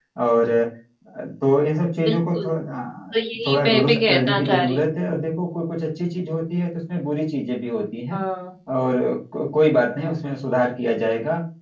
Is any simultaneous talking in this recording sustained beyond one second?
Yes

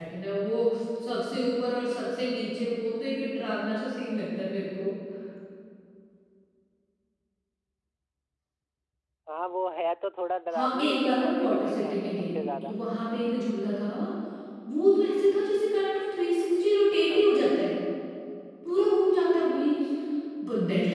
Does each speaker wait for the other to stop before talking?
No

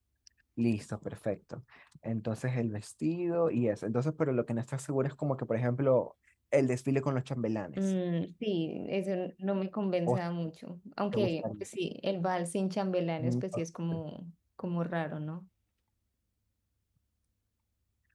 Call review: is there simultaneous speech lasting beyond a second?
No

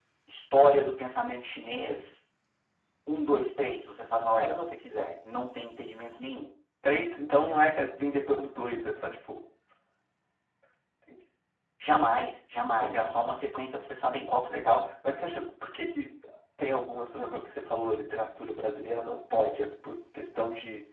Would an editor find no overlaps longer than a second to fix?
Yes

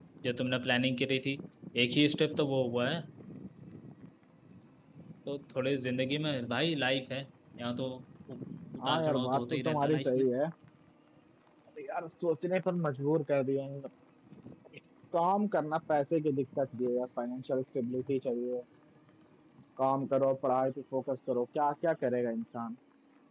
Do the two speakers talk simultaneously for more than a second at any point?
Yes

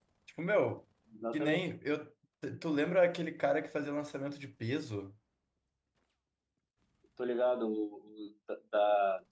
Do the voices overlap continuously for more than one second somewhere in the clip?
No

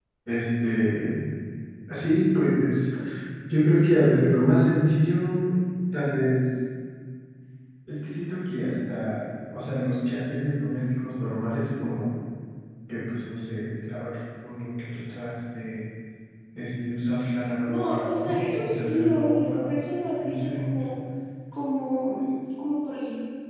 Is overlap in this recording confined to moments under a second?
No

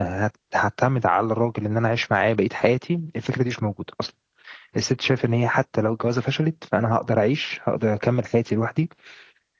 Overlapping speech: No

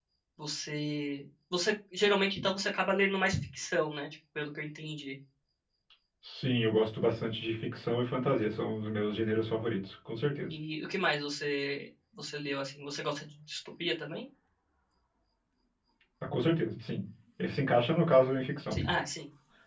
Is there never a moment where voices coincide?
Yes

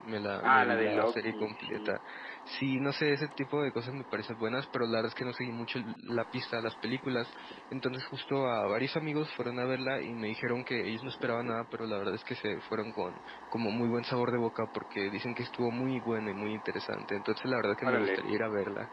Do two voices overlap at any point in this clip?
Yes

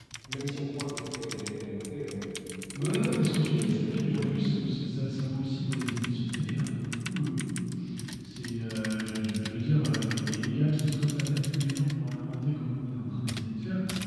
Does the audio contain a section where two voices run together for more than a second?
Yes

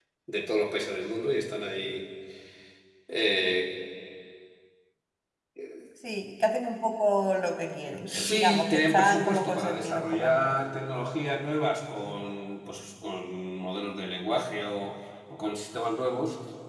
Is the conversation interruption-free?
No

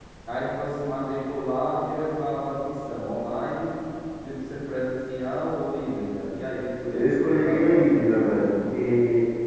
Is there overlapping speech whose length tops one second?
Yes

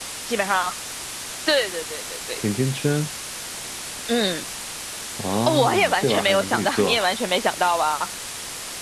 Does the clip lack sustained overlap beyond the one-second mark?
No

